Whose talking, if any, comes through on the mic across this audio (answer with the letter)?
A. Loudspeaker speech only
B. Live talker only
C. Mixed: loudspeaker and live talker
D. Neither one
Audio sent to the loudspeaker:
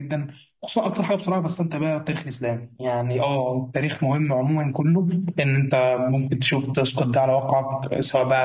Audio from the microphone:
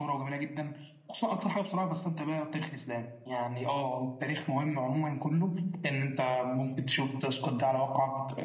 A